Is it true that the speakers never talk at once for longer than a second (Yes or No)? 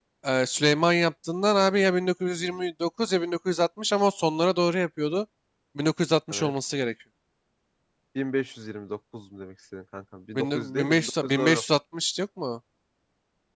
No